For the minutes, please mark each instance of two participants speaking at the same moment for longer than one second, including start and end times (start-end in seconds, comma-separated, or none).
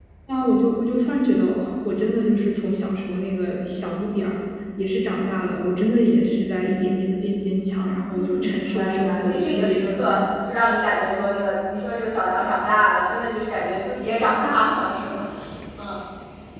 8.1-10.2